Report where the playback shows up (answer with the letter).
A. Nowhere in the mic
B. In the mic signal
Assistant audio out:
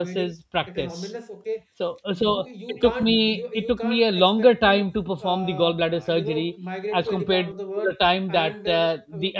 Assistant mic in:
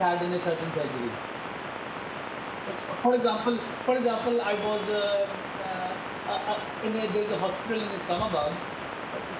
A